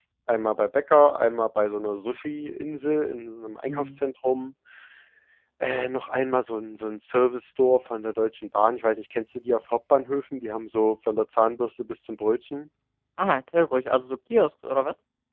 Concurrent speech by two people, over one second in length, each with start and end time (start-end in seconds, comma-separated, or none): none